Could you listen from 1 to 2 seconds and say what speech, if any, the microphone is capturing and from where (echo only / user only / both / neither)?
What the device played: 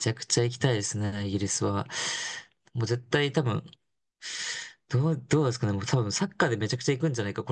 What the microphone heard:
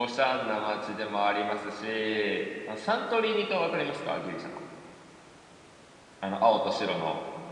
user only